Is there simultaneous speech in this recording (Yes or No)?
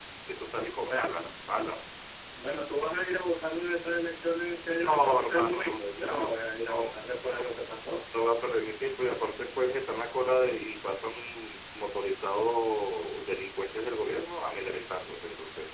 Yes